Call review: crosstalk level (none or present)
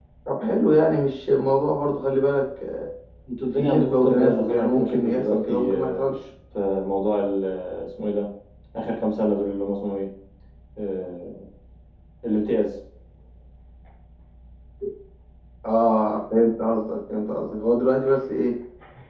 present